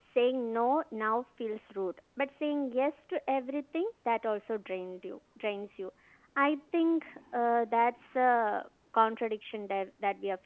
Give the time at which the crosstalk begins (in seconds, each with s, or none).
none